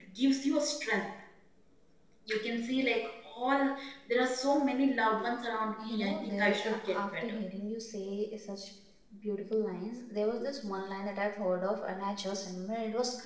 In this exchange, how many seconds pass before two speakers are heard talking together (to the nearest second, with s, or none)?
6 s